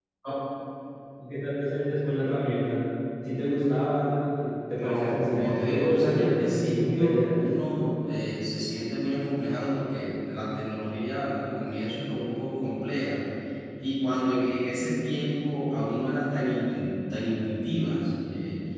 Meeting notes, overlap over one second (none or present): present